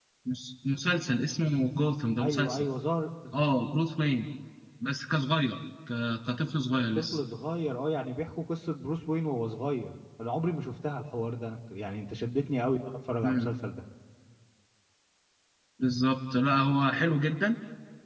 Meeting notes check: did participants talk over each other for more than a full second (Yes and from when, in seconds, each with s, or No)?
No